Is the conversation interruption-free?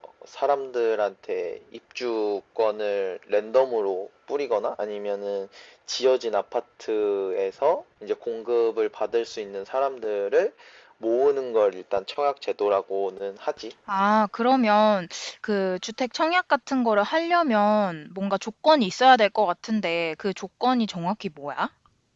Yes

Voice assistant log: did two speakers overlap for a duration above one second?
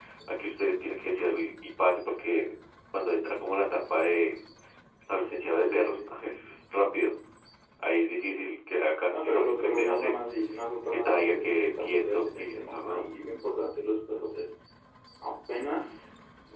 Yes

